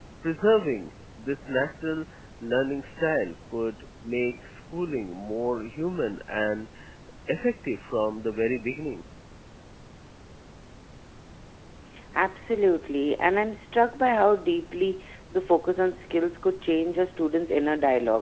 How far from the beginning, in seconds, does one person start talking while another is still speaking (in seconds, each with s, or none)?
none